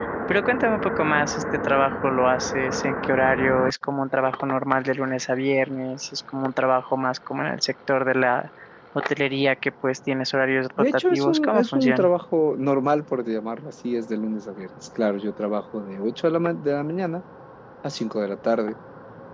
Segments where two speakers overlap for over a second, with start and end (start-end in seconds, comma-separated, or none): 10.8-12.1